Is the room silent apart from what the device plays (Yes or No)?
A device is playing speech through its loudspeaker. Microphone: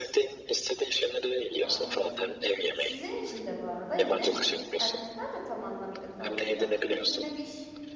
No